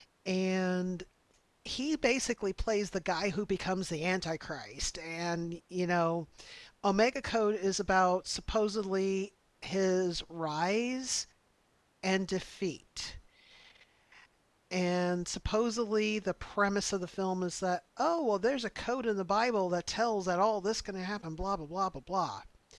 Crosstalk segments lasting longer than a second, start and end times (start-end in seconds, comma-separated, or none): none